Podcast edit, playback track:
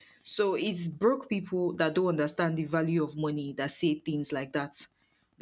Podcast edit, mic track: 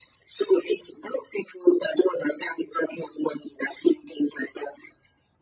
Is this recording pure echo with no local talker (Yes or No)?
Yes